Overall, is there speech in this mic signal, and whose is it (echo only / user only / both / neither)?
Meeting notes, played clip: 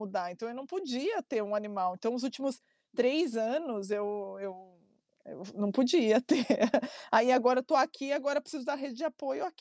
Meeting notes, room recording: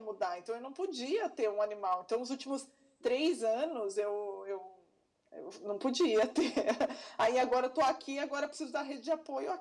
echo only